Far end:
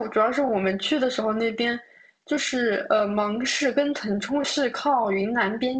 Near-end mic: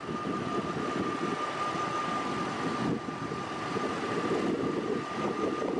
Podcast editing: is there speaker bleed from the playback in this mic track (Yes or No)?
No